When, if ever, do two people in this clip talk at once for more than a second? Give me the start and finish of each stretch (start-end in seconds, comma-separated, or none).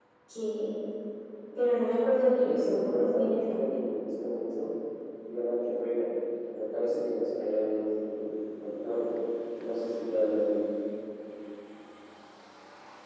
2.4-3.6